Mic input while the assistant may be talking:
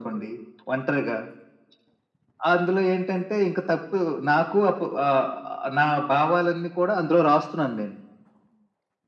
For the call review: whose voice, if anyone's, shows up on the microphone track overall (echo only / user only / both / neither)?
echo only